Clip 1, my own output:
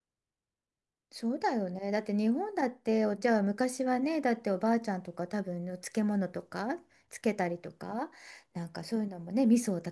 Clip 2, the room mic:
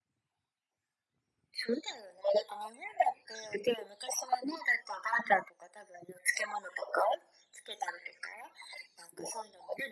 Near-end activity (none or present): none